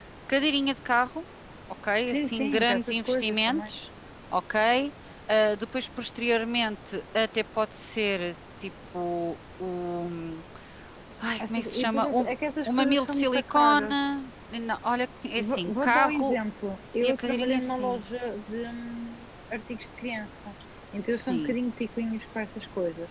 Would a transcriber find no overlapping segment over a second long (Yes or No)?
No